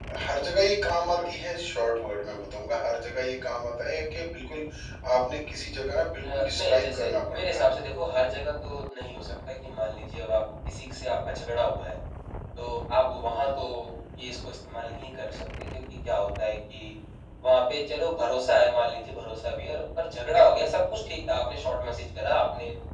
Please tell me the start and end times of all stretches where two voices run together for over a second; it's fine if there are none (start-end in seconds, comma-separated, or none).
6.2-7.7